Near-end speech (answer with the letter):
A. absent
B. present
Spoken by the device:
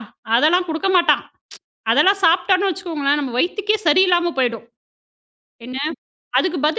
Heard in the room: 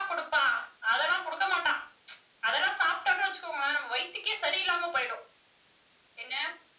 A